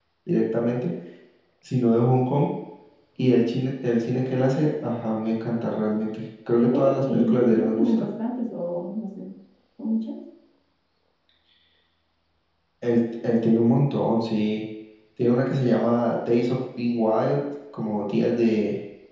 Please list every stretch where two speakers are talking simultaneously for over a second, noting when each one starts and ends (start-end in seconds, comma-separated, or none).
6.6-8.0